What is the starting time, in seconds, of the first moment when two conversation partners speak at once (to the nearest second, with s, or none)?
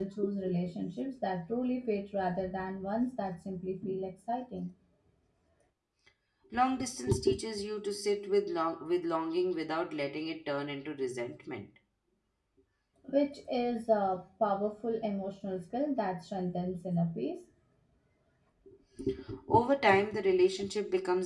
none